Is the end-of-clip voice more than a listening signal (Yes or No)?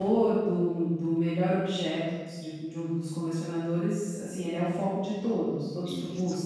Yes